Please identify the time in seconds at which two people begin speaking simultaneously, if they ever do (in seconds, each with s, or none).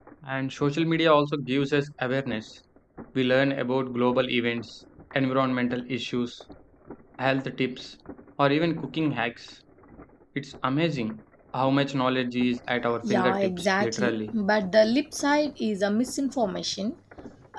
13.0 s